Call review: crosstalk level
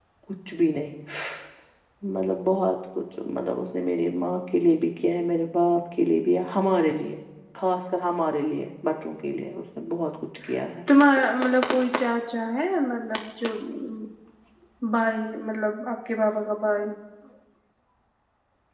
none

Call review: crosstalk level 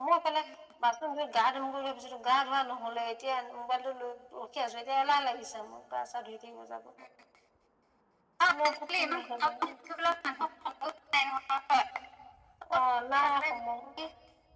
present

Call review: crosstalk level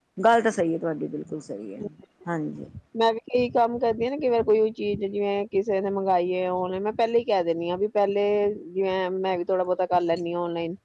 none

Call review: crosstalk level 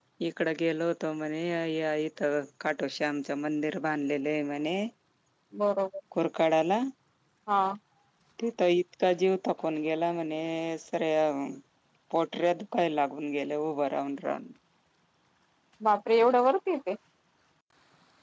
none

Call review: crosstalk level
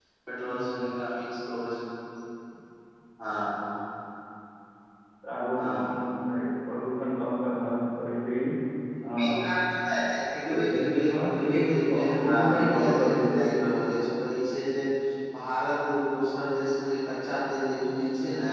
present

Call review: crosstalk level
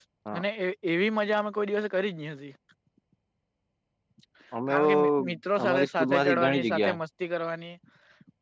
present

